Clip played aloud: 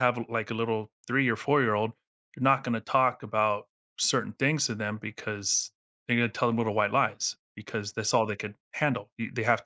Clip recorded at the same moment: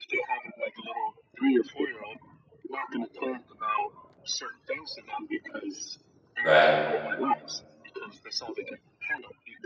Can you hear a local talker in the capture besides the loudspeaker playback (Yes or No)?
Yes